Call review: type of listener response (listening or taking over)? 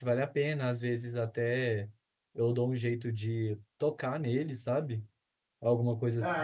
taking over